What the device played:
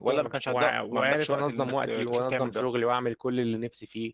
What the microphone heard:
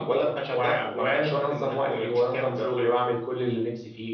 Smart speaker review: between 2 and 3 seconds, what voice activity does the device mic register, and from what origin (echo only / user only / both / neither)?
echo only